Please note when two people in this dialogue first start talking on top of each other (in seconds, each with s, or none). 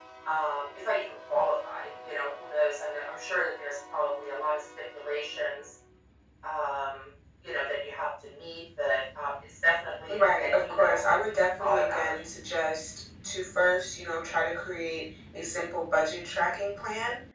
10.1 s